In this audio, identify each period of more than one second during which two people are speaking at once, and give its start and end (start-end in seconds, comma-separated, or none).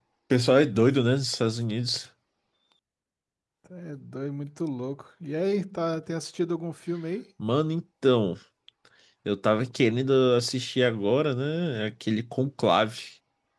none